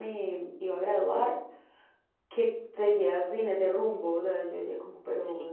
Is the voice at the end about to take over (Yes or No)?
No